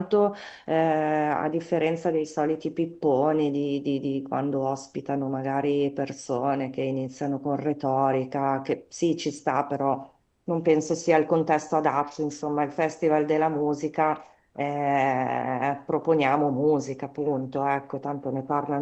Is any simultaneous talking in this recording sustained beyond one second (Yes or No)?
No